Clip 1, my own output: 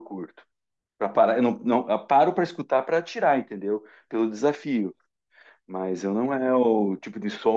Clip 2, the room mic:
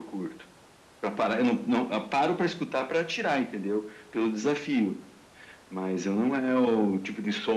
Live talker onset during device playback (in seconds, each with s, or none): none